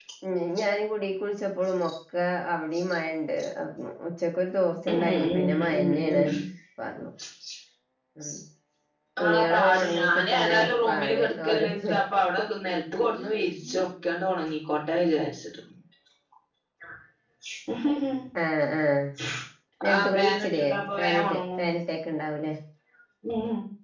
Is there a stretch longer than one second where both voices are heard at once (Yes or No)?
Yes